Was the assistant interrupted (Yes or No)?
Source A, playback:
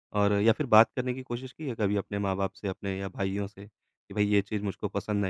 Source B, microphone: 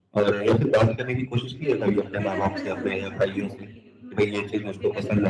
Yes